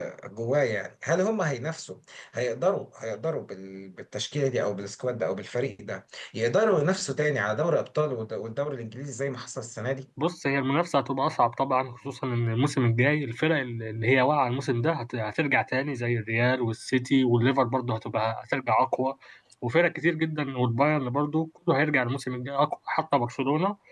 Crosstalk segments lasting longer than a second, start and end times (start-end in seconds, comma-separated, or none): none